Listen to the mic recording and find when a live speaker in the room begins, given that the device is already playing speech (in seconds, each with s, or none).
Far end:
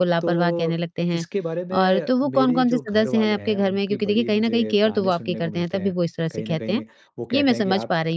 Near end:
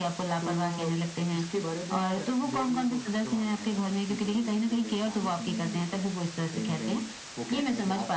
none